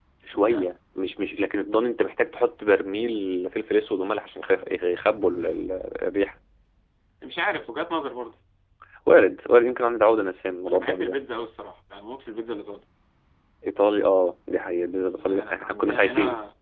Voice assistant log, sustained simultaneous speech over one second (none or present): present